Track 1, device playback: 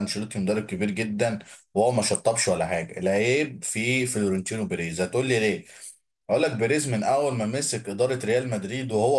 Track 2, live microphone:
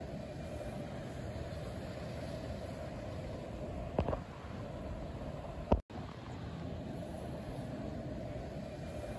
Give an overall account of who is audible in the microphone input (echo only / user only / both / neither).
neither